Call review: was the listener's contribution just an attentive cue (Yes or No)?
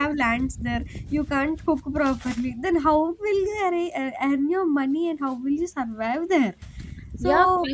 No